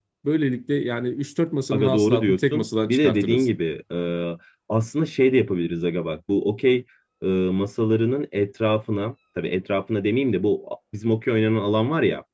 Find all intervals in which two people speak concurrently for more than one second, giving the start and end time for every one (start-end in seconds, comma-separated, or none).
1.7-3.5